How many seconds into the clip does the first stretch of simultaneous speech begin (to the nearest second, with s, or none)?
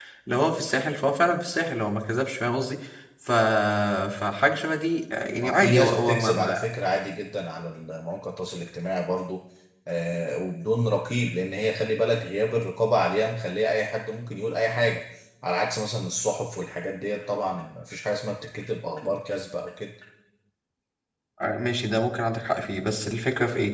5 s